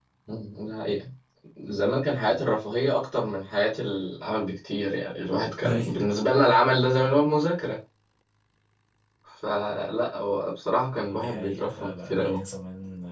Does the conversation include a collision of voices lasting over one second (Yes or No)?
Yes